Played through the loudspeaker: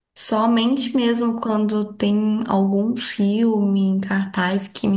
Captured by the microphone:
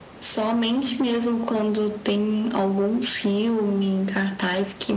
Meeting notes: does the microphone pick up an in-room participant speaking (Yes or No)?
No